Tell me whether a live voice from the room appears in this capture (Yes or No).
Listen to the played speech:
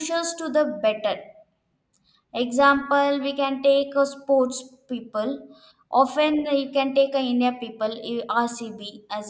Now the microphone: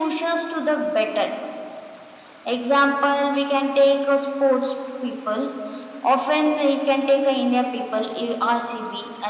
No